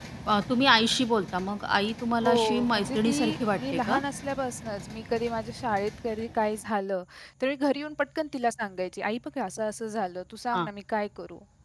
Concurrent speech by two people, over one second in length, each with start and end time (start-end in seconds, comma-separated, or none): 2.2-4.0